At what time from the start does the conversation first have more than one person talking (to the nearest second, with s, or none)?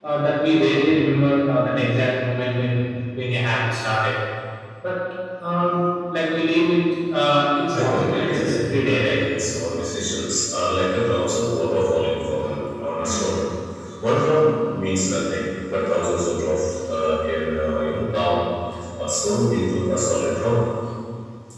8 s